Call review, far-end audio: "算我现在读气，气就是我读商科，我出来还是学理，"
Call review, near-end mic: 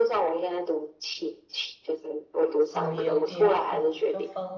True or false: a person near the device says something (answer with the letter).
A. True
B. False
A